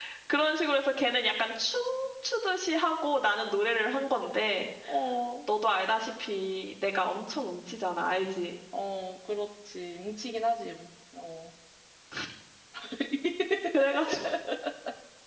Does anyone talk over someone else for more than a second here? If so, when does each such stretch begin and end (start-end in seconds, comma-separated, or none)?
none